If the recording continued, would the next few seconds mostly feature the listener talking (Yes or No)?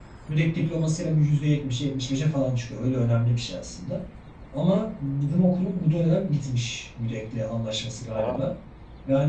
No